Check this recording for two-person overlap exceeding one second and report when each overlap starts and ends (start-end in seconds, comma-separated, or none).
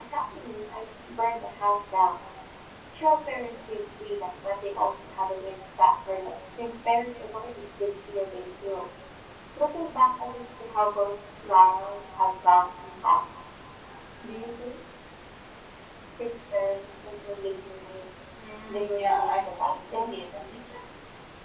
18.7-20.1